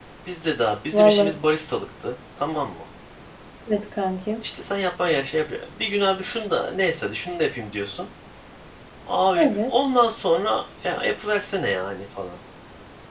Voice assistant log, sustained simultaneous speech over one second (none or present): none